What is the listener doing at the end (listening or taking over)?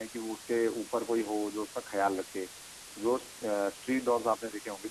listening